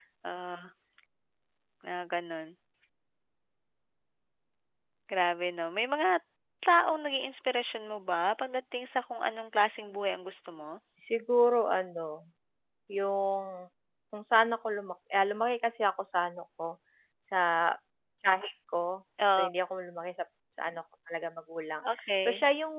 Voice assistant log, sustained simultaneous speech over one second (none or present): none